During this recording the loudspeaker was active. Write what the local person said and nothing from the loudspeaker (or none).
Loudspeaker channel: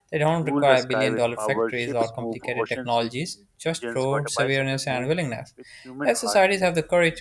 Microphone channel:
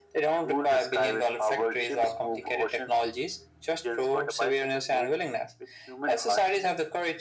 none